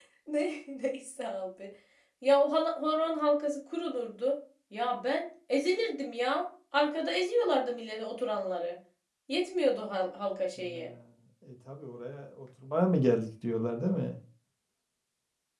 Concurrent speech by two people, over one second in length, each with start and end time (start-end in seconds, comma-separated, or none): none